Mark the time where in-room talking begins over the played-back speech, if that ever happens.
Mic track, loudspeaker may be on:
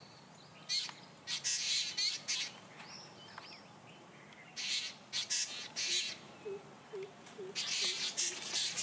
none

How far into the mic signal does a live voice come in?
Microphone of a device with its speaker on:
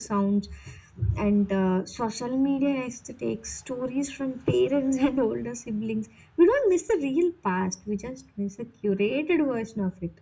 none

